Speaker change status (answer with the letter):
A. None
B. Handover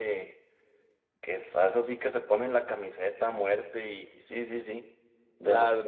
B